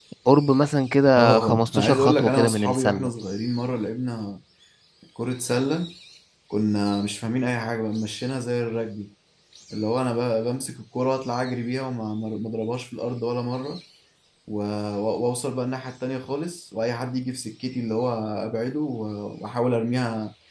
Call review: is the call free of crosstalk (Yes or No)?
No